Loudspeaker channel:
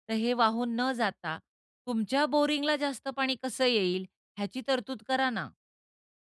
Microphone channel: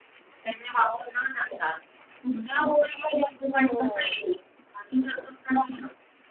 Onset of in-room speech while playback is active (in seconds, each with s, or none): 3.6 s